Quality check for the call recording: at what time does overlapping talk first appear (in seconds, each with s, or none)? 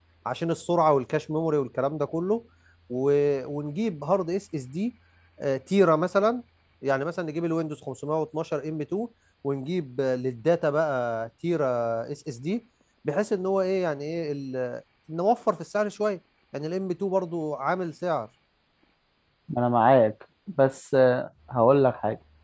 none